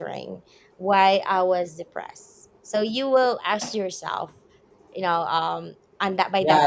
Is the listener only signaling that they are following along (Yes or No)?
No